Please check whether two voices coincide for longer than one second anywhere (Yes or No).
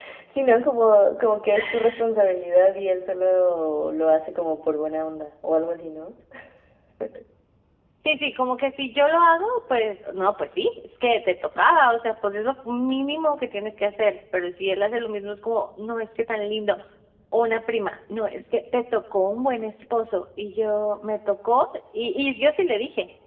No